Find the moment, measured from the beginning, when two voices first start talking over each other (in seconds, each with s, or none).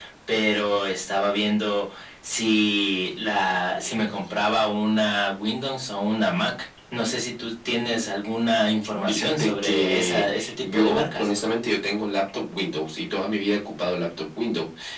9.1 s